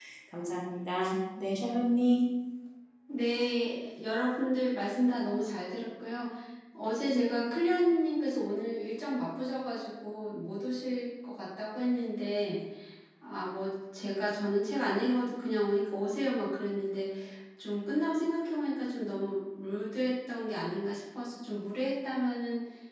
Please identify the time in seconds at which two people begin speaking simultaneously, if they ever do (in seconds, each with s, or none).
none